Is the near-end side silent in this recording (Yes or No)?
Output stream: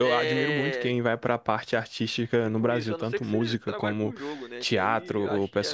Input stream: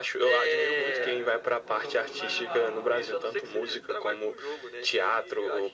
No